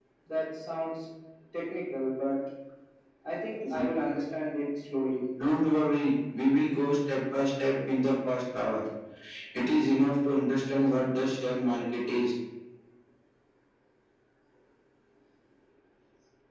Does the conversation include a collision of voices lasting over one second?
No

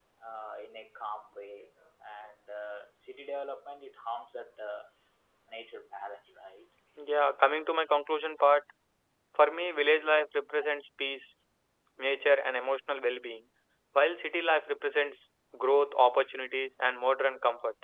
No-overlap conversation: Yes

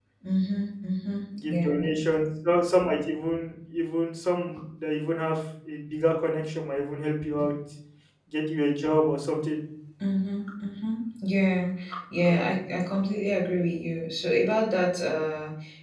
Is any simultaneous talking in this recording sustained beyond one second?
No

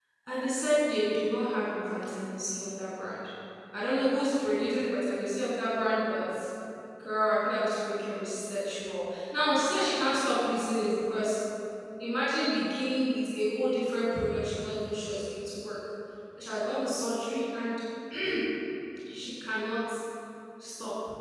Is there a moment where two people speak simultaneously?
No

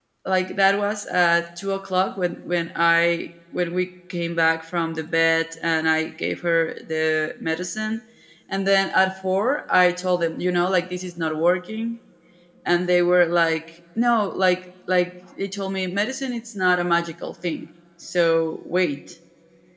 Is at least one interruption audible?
No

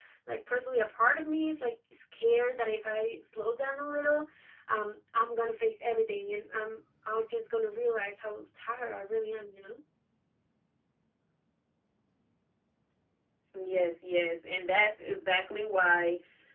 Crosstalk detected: No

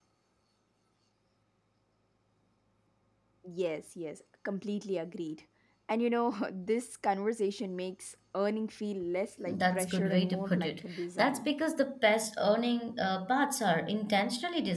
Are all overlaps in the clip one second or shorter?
No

